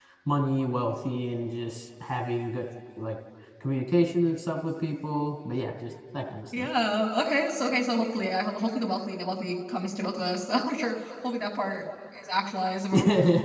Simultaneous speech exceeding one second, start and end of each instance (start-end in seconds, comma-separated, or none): none